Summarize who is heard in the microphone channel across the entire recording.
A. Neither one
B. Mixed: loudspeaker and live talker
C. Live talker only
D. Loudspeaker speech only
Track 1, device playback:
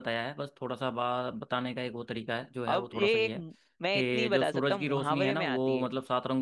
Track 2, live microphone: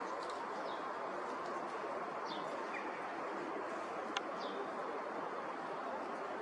A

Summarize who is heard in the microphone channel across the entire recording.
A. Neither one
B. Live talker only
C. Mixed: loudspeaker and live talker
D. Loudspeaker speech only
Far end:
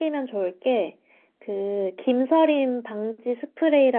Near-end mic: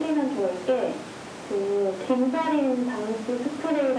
D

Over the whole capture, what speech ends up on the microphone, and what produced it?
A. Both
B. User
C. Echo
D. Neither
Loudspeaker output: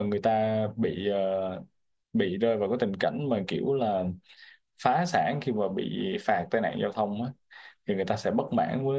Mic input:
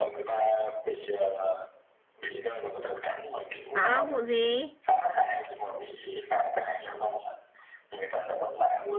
A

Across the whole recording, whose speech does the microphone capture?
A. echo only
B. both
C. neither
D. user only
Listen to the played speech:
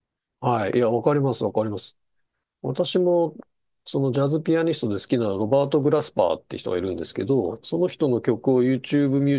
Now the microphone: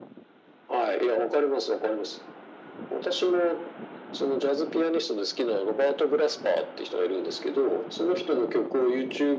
A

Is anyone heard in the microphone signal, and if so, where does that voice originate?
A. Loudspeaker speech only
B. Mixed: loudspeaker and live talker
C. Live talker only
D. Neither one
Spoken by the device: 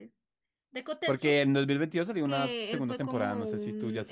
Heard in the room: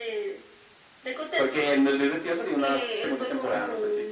A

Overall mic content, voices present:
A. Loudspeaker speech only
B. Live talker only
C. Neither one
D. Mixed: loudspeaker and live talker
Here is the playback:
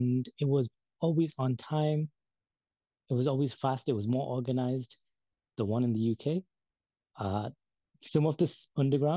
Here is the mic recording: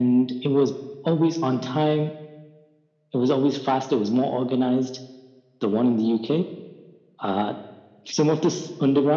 A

